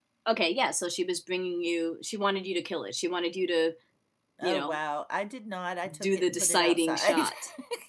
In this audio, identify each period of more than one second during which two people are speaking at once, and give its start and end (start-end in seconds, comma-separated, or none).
6.0-7.3